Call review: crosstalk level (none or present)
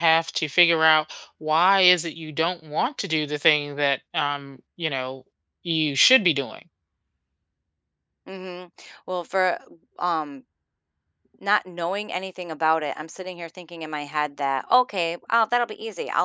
none